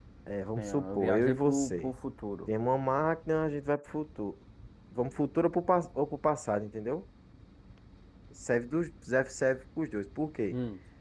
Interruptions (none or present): present